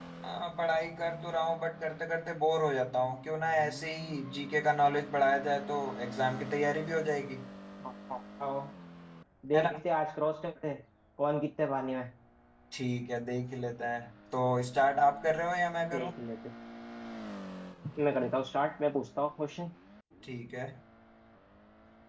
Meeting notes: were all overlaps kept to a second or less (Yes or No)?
Yes